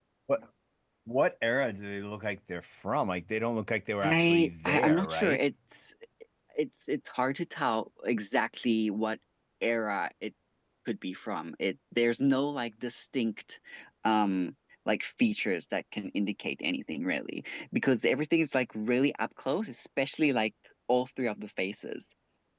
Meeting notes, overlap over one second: present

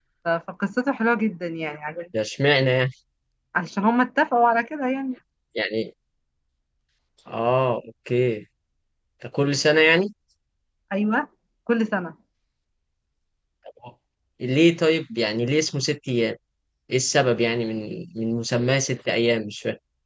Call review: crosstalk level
none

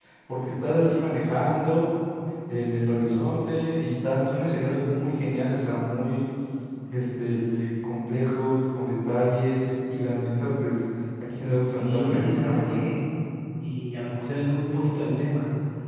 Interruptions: present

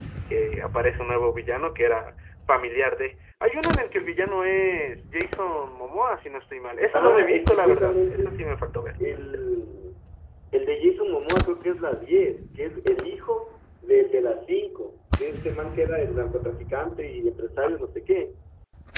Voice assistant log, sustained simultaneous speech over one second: present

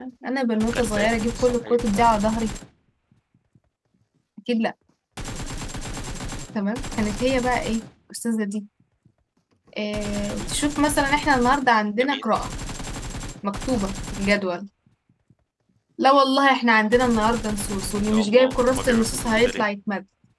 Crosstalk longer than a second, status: present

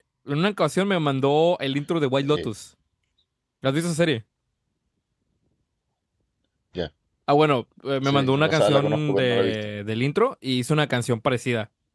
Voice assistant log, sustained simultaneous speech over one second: present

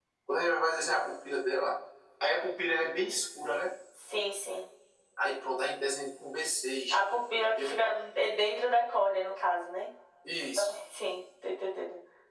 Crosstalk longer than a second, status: none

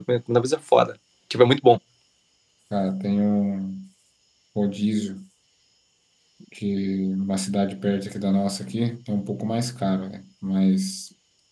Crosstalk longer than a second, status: none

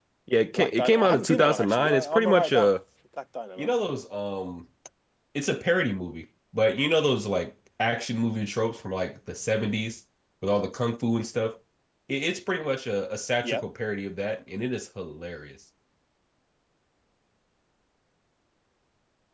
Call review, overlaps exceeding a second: present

